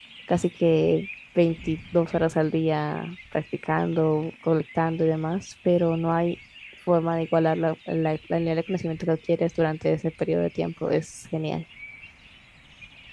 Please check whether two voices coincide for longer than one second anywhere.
No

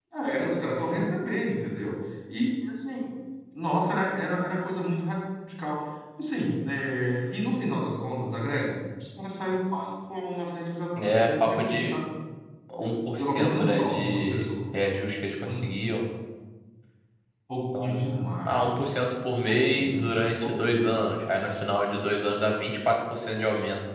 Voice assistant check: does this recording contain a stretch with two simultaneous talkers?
Yes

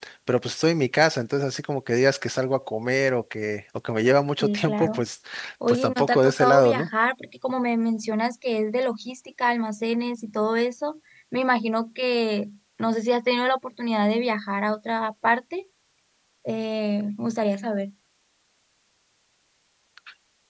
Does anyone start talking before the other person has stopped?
Yes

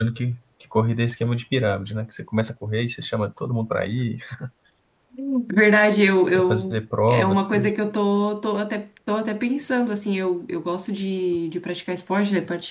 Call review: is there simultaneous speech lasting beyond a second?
Yes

